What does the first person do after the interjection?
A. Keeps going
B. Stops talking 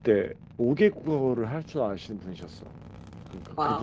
A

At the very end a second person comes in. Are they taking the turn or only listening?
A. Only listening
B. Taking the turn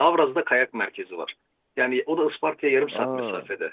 A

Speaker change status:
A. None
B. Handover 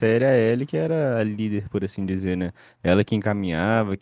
A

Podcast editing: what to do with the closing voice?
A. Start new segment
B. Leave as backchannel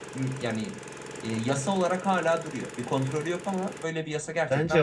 A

